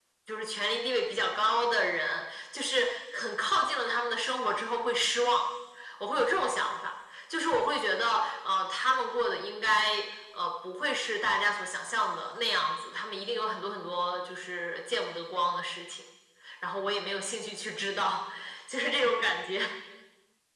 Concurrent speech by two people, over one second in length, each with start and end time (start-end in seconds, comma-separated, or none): none